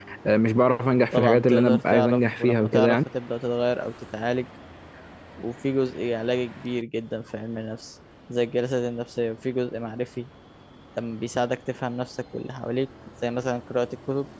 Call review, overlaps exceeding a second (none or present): present